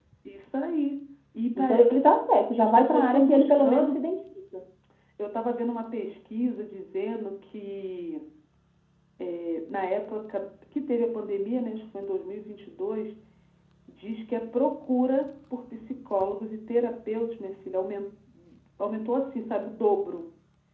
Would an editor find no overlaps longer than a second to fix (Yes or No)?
No